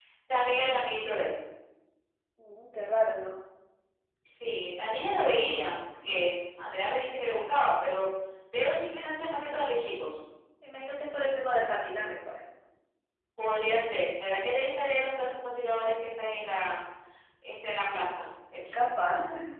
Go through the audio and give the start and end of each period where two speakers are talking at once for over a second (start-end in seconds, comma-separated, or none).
none